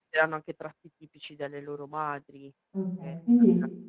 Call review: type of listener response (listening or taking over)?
taking over